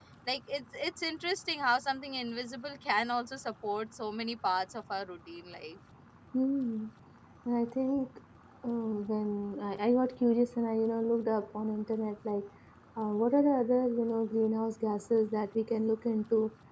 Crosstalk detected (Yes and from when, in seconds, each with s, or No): No